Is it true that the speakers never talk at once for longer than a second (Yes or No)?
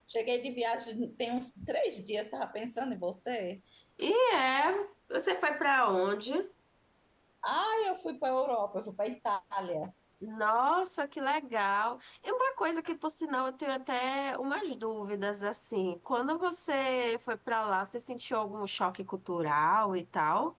Yes